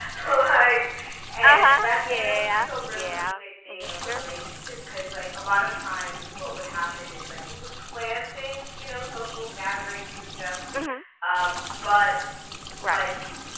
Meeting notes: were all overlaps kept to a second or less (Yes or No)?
No